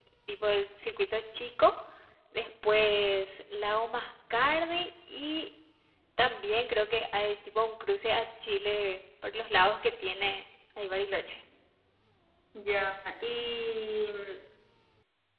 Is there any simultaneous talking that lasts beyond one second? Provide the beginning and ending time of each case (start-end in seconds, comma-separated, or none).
none